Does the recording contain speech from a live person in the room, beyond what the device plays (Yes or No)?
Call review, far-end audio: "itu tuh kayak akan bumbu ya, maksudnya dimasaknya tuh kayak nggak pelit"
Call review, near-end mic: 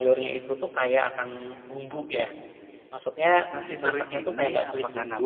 Yes